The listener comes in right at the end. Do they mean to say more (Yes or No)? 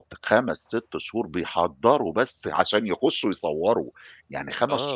No